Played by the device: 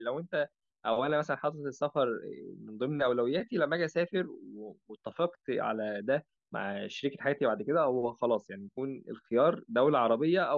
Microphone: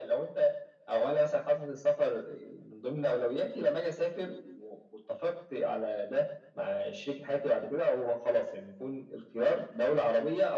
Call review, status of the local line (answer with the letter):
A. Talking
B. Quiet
B